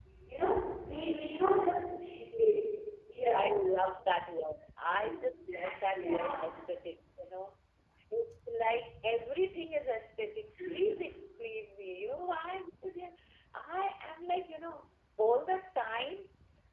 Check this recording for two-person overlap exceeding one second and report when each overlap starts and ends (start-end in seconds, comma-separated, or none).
none